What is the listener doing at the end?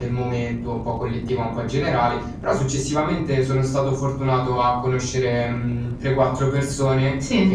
listening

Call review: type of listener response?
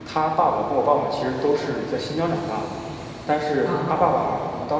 listening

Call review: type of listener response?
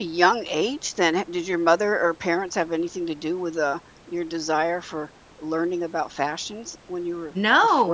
taking over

